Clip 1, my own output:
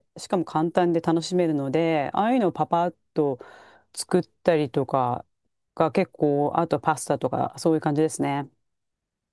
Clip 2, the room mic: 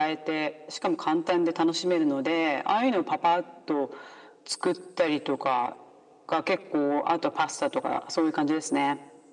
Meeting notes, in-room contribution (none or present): none